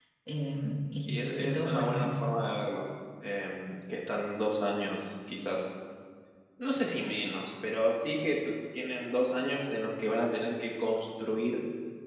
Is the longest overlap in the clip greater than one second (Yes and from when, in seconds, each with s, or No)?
Yes, from 1.1 s